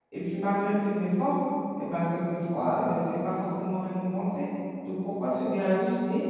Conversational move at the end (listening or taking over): listening